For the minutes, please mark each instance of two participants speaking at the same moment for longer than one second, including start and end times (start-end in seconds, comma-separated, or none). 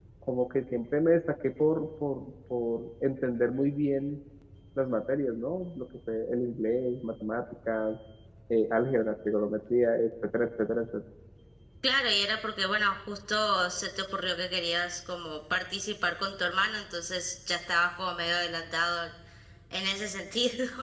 none